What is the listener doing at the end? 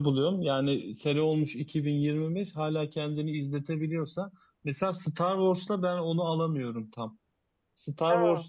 listening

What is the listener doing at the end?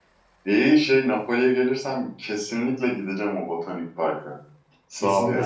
taking over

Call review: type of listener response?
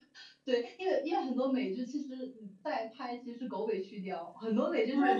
taking over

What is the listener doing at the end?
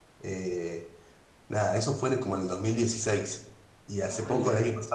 listening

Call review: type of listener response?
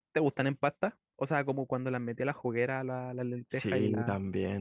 taking over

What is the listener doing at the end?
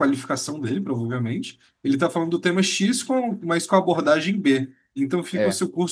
listening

